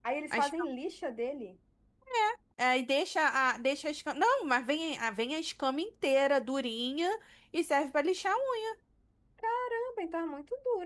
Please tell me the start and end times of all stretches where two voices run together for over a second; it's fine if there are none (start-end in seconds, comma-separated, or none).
none